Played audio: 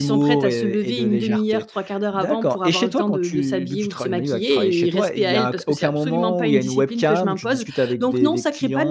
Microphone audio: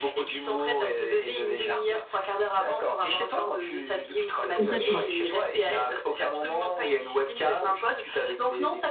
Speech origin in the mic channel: both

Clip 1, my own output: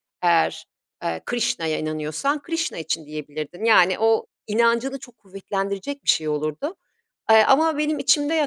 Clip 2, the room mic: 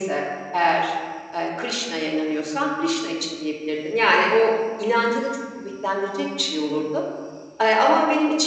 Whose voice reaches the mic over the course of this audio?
echo only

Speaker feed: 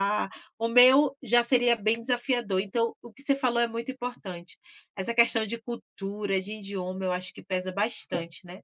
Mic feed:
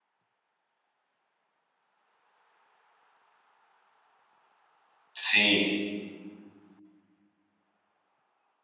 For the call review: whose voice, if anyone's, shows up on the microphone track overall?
user only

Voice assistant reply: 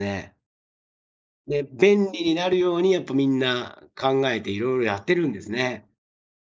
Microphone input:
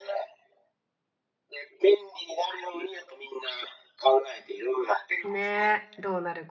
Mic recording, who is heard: both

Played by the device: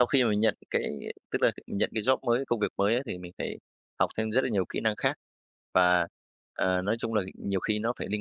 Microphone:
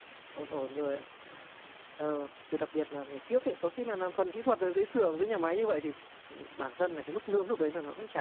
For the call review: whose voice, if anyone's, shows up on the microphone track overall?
user only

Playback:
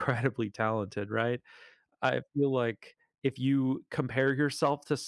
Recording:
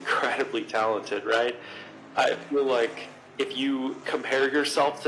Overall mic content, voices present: echo only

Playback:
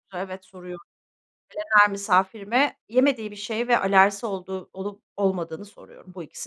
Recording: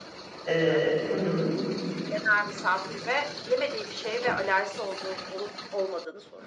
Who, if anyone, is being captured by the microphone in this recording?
both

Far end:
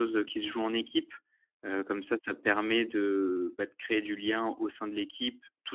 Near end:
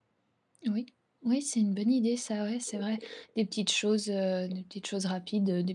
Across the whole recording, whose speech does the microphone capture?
user only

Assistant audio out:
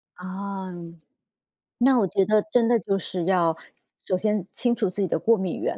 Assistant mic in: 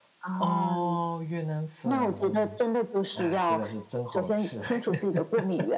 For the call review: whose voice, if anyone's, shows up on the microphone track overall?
both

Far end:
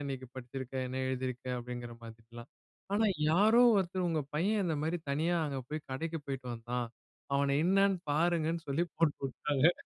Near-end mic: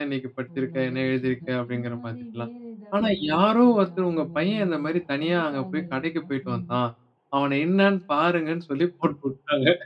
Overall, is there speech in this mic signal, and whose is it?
both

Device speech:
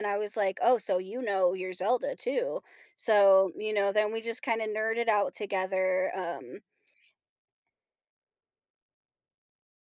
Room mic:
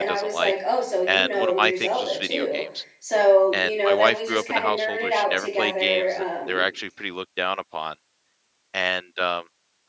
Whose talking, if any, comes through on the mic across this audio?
both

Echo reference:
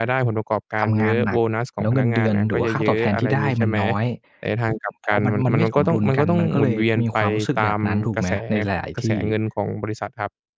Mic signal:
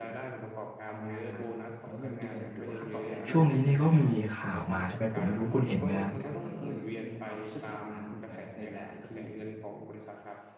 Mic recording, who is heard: both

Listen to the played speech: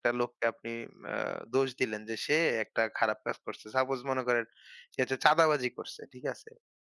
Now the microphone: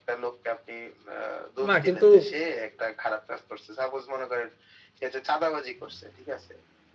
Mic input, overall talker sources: both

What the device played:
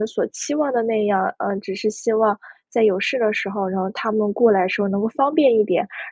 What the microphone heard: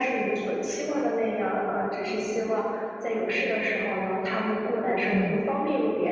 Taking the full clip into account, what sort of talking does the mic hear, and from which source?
both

